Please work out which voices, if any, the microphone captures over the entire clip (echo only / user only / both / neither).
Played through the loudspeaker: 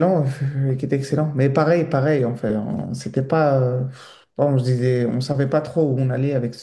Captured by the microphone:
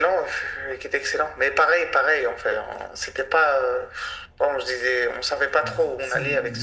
both